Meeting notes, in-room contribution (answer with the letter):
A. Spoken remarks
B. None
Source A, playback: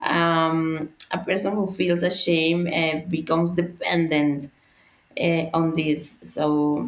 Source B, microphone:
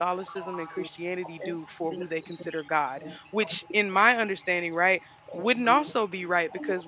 A